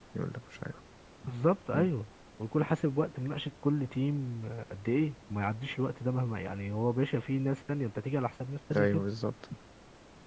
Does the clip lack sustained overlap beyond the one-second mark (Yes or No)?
Yes